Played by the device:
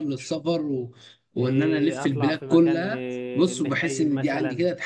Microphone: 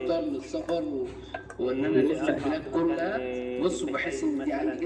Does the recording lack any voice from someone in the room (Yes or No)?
No